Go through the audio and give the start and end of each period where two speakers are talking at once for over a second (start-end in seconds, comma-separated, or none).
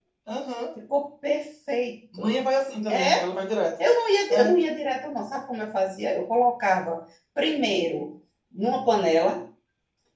none